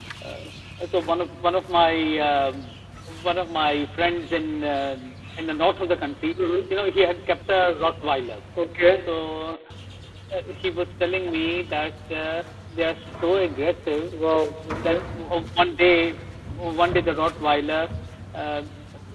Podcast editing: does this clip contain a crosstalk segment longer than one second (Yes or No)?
No